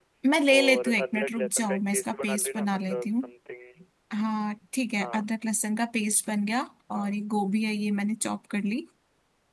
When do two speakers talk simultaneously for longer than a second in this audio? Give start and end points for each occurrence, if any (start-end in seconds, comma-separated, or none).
0.6-3.1